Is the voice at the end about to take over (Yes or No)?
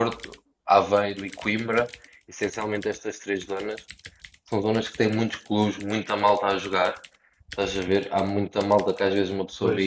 No